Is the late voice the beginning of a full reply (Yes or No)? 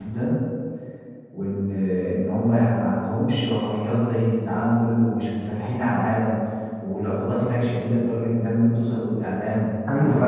Yes